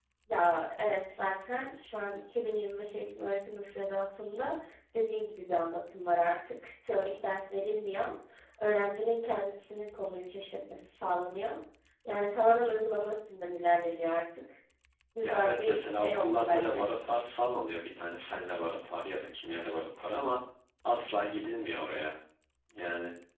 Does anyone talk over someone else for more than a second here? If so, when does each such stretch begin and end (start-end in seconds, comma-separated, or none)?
15.2-16.9